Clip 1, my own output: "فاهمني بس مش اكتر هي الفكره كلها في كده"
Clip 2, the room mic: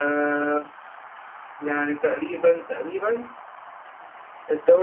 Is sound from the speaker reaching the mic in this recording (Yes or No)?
No